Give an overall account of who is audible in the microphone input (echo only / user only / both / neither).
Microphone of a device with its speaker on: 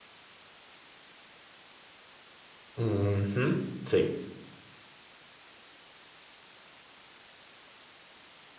user only